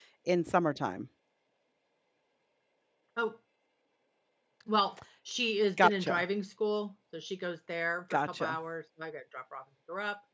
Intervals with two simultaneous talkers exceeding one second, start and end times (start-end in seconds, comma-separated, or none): none